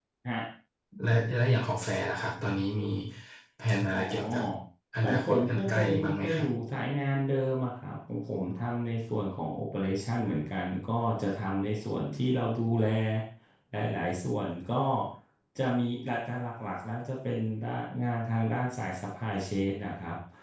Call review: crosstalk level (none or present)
present